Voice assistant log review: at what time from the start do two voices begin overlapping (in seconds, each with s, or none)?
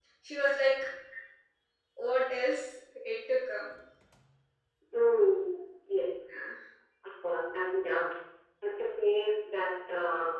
none